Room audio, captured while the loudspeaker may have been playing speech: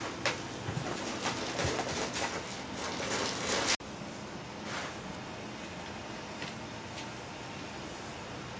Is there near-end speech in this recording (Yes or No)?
No